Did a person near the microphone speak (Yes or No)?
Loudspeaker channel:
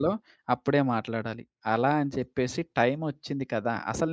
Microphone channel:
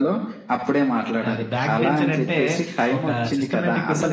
Yes